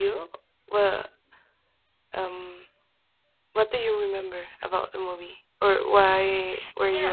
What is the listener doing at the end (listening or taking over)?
taking over